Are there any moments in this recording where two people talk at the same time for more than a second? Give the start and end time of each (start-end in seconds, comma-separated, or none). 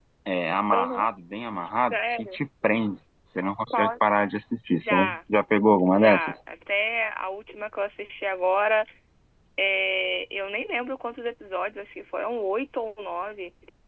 none